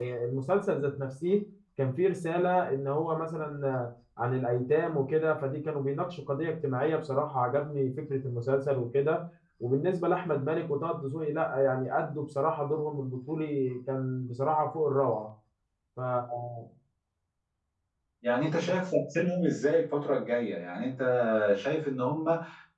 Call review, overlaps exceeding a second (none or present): none